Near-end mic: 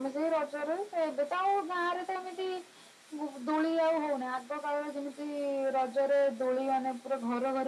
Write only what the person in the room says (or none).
none